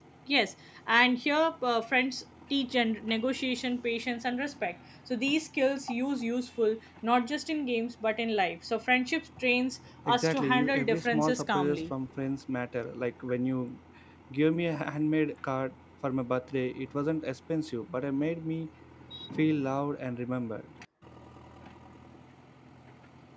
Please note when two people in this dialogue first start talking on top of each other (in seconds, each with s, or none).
10.0 s